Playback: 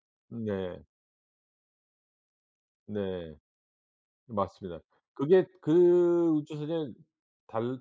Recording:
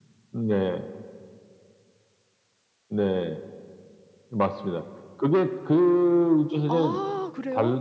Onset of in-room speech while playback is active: 6.6 s

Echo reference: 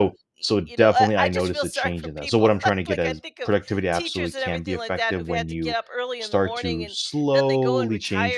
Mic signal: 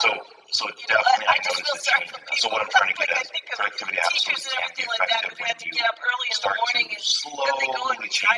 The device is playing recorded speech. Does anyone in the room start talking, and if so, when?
none

